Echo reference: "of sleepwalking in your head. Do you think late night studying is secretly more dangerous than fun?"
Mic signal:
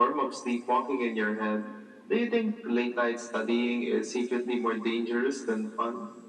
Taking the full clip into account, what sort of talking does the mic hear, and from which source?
echo only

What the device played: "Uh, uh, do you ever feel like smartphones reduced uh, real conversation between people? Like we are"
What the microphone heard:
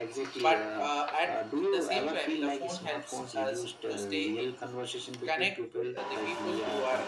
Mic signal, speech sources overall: both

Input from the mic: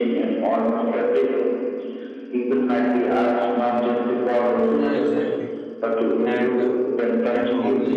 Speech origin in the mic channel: both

